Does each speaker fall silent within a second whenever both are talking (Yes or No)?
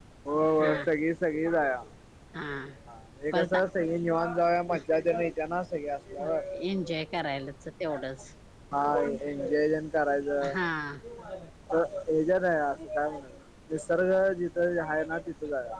Yes